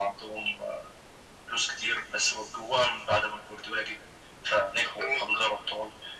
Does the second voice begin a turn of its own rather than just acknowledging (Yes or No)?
No